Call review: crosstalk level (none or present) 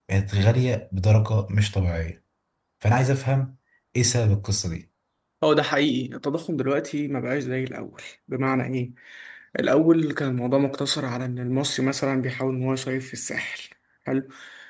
none